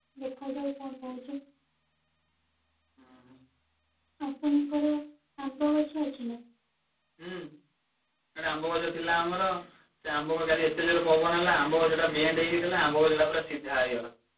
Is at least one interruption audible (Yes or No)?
No